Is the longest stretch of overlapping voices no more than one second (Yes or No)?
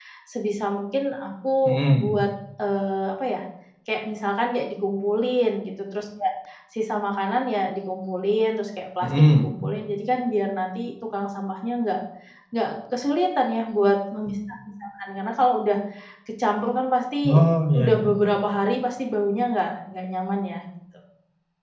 Yes